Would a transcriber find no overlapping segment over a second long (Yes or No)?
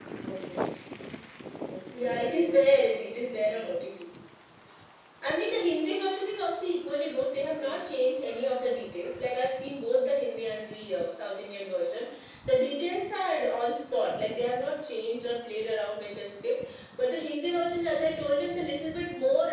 No